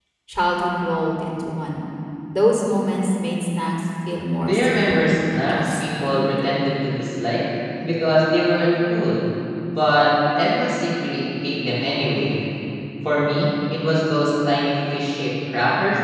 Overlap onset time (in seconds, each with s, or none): 4.4 s